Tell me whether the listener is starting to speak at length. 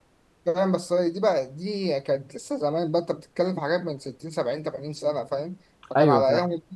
No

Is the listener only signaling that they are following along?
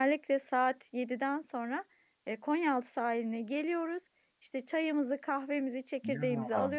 Yes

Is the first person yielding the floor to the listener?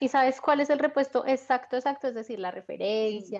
Yes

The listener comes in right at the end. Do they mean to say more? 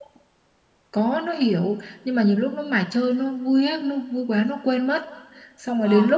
No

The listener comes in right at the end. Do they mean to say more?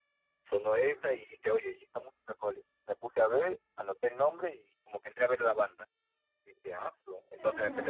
No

